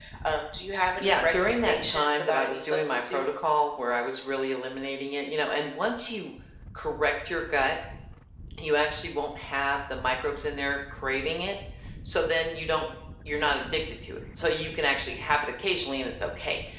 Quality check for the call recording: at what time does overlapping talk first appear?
1.0 s

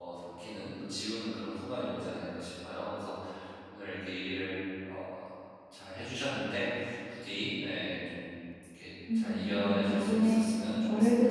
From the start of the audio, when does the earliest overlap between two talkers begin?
9.1 s

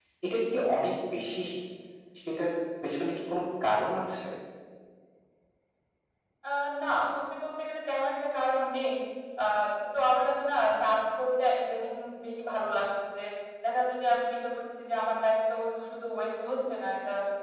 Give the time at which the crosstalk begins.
none

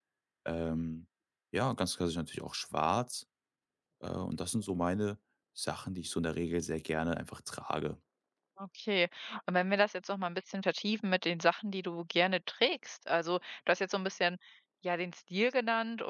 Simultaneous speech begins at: none

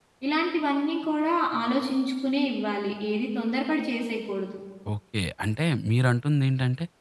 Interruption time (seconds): none

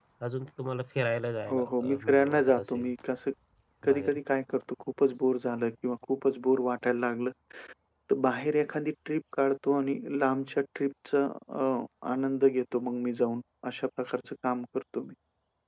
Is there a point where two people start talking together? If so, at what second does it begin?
1.5 s

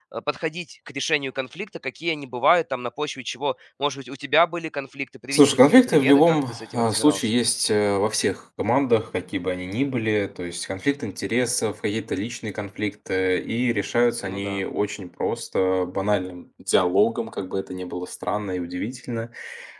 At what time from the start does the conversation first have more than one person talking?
5.3 s

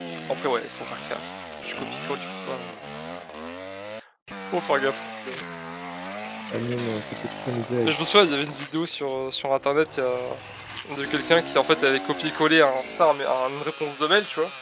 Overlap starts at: none

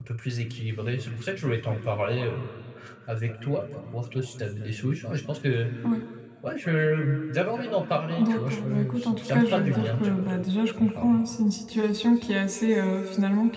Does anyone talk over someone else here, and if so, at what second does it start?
8.2 s

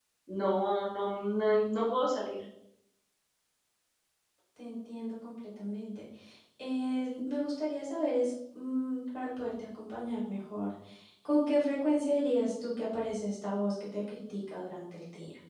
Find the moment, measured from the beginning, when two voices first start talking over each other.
none

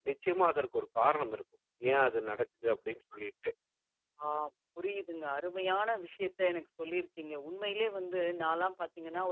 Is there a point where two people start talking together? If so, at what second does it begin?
none

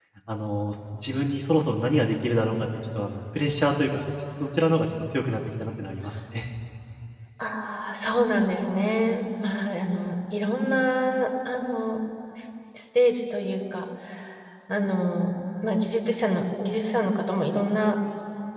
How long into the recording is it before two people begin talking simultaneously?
none

